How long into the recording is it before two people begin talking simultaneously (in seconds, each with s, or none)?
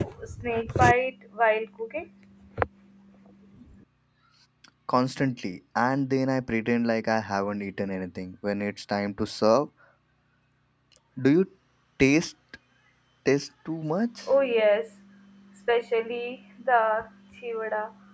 none